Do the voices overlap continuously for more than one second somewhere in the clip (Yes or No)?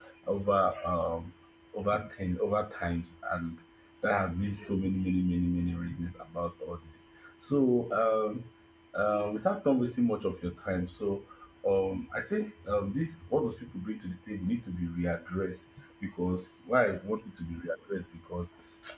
No